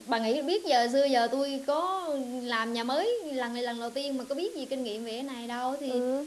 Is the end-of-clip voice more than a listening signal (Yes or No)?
Yes